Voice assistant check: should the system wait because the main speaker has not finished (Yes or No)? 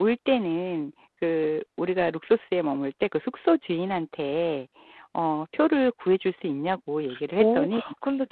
No